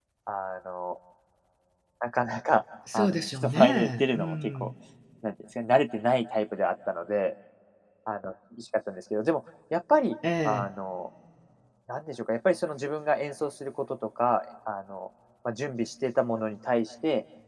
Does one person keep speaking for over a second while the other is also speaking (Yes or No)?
Yes